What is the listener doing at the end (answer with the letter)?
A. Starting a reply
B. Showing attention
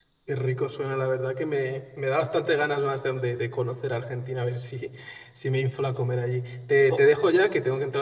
B